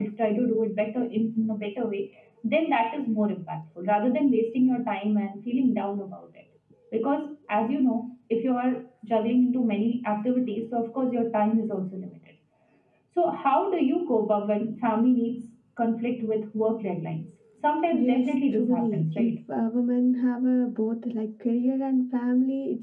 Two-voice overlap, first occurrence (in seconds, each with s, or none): 17.9 s